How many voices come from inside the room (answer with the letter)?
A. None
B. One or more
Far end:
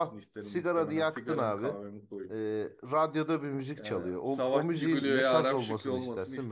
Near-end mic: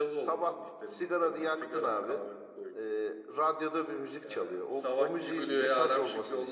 A